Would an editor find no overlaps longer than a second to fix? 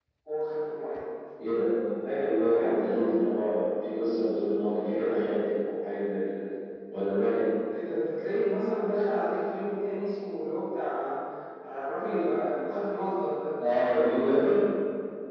Yes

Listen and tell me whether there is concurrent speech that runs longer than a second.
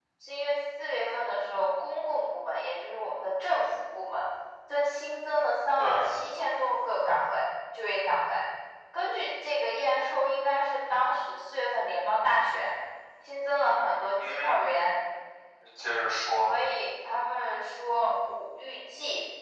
No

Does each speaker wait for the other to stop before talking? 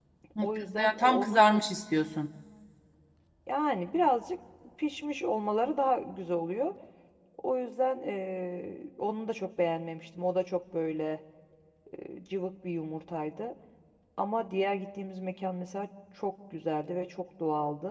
No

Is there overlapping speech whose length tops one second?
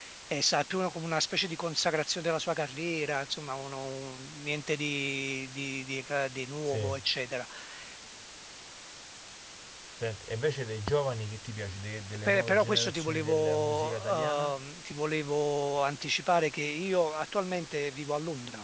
Yes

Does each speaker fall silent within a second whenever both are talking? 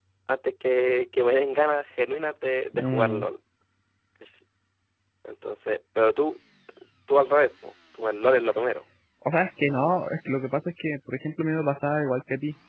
Yes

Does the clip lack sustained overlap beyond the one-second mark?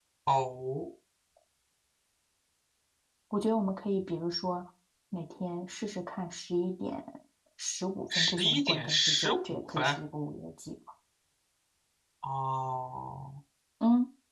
No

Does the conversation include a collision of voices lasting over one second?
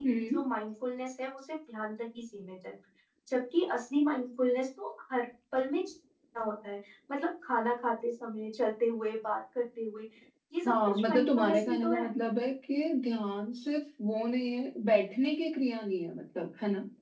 Yes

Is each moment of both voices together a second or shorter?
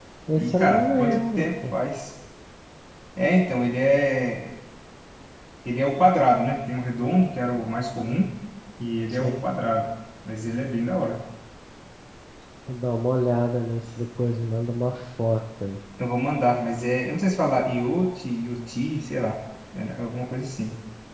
No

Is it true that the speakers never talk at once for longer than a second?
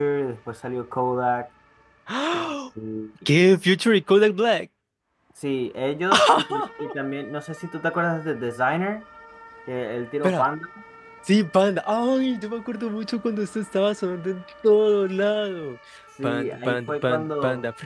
No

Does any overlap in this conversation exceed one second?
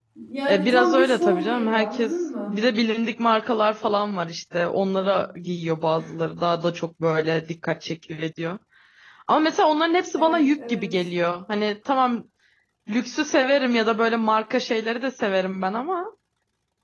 Yes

